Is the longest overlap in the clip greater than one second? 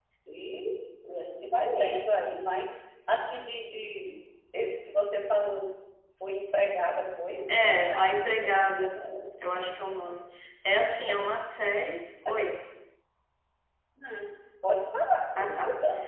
Yes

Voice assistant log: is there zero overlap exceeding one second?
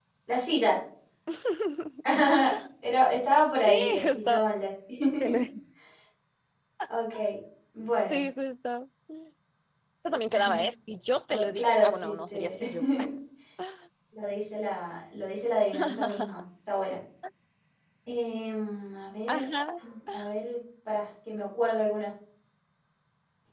No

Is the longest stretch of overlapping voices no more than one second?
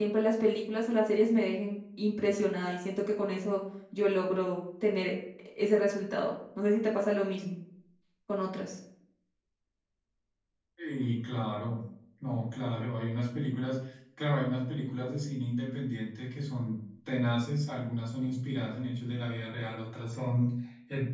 Yes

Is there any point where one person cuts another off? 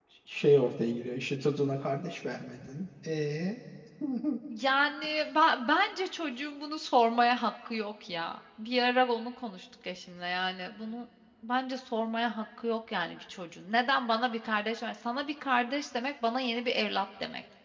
No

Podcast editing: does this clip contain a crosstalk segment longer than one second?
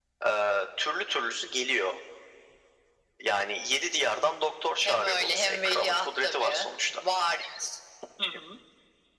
Yes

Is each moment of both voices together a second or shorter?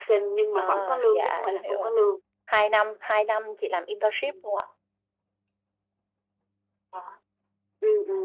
No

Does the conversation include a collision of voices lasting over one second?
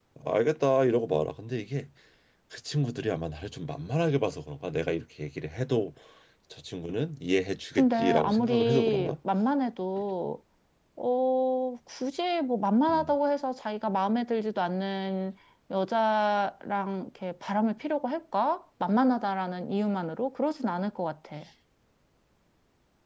Yes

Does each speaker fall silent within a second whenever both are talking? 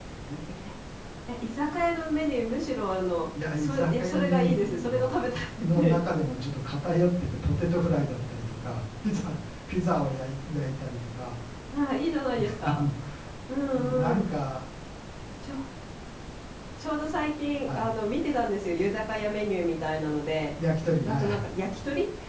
No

